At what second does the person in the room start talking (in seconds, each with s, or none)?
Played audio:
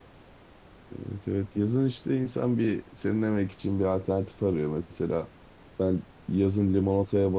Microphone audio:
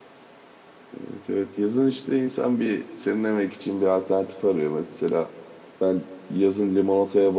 none